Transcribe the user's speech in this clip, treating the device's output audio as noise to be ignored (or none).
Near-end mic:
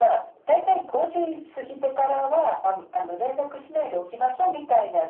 none